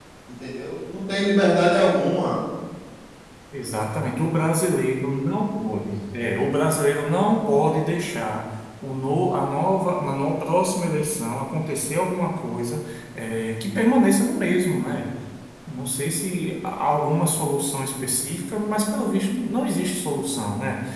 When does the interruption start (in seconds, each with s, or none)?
none